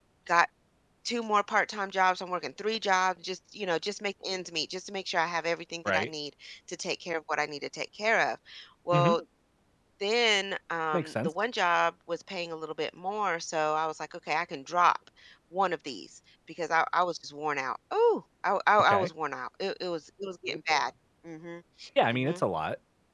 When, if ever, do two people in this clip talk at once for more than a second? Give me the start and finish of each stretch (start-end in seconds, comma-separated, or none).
none